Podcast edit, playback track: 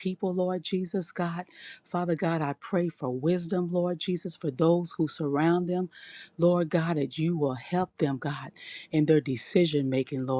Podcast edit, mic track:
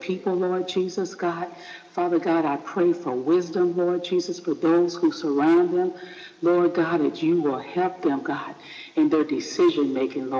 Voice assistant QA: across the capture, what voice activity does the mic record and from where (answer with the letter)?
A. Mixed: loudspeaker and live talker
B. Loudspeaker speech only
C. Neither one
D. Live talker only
B